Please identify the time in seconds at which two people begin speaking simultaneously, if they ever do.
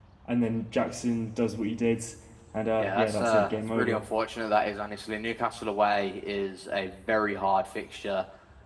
2.8 s

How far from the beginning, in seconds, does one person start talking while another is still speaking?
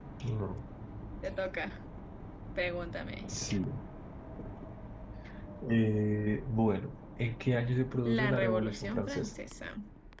8.0 s

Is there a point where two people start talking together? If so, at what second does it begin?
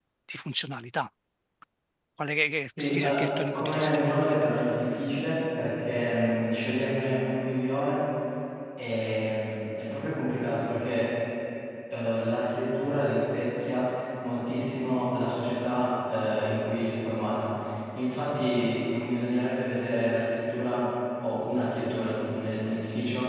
2.8 s

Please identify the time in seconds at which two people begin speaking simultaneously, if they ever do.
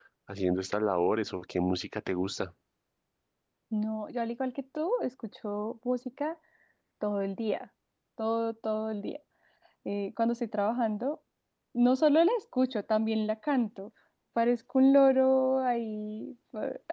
none

